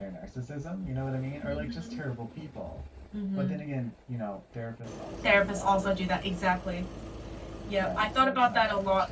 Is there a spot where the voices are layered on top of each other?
Yes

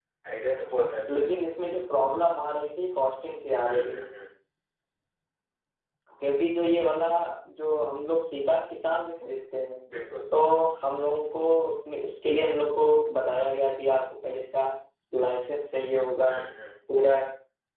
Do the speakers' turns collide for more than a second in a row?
No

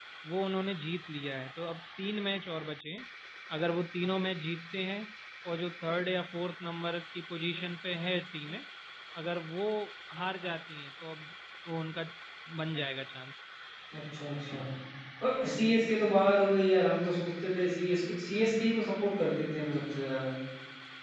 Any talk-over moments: No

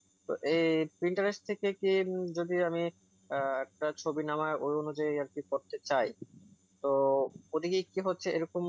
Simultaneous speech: No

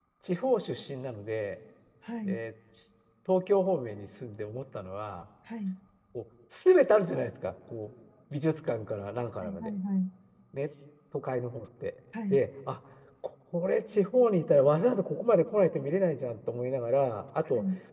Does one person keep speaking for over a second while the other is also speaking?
No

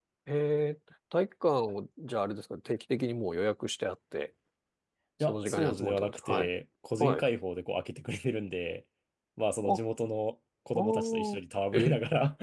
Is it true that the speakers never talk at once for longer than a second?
No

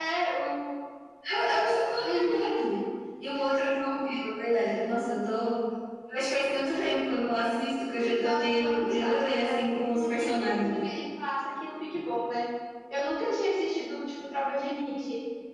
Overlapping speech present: Yes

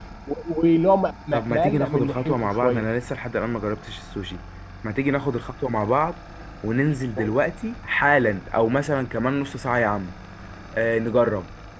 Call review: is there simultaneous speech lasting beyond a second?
Yes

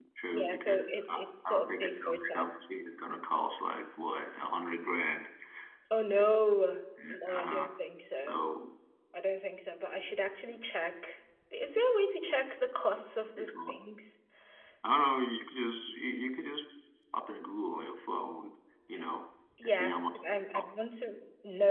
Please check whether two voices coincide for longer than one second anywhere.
Yes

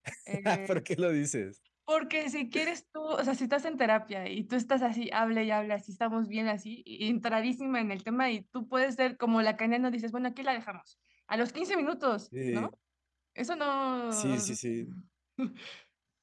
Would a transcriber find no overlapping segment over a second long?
Yes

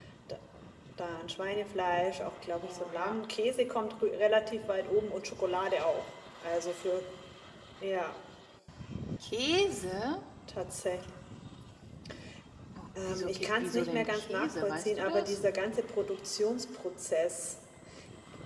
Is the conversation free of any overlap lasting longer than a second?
No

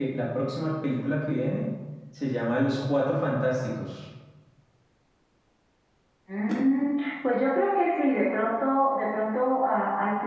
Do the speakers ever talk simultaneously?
No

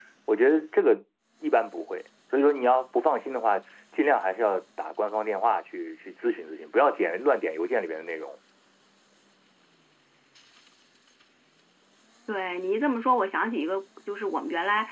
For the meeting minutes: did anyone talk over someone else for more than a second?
No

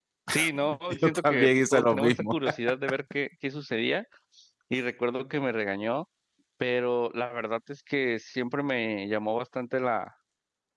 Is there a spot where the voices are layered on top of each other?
Yes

